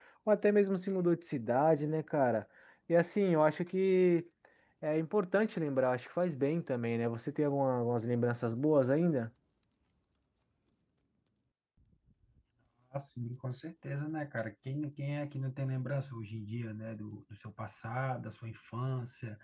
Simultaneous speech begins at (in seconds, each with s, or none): none